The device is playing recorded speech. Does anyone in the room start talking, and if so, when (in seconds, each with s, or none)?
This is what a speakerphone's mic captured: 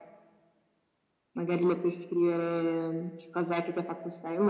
none